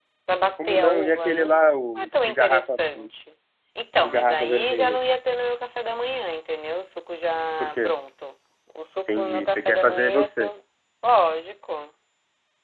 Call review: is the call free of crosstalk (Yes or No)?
No